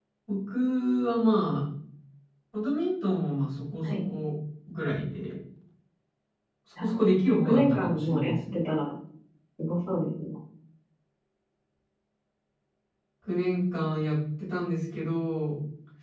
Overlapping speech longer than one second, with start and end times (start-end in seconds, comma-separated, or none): 6.8-8.6